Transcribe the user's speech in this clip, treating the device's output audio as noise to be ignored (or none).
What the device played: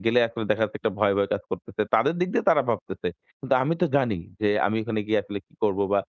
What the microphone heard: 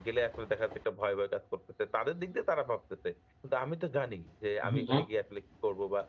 হুম, হুম।